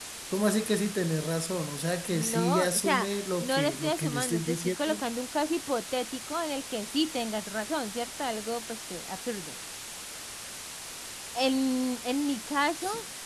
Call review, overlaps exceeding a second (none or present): present